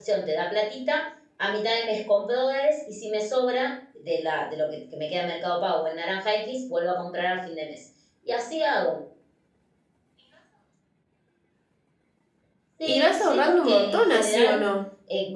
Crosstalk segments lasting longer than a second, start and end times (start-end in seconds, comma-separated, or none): 12.9-14.6